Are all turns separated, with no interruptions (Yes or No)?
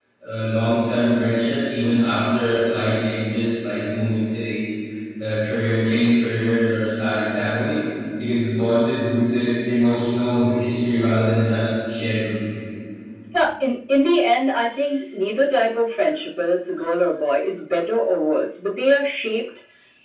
Yes